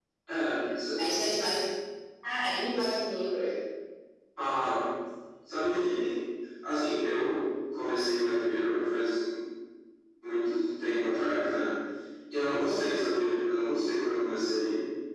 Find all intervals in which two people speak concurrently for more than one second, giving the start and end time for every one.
none

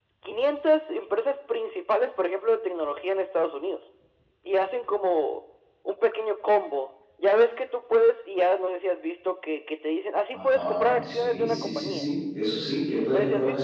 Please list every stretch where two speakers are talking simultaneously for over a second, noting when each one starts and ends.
10.3-12.0

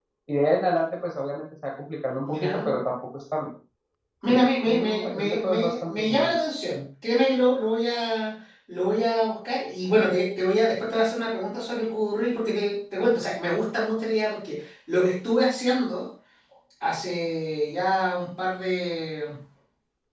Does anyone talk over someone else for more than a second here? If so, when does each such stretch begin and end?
4.3-6.3

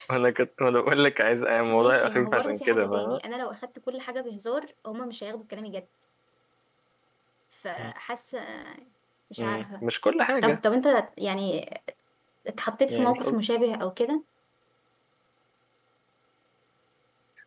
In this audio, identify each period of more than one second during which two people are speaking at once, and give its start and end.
1.7-3.2

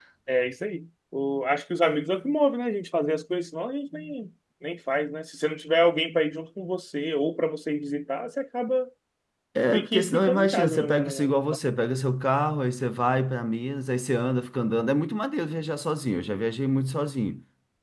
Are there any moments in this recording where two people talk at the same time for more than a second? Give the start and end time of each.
9.7-11.6

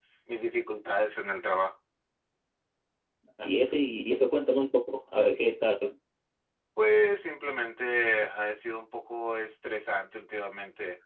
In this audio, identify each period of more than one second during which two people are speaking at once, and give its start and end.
none

